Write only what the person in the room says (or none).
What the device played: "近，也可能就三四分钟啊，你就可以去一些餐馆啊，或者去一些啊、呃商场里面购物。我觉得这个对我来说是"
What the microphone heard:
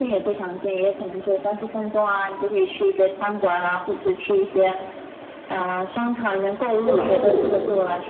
就不能就